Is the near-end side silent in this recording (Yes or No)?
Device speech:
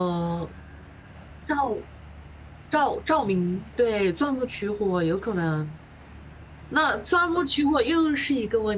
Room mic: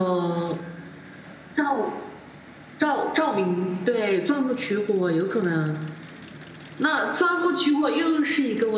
Yes